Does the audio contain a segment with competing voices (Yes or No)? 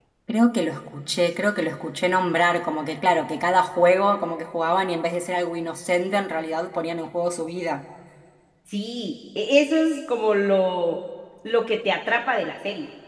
No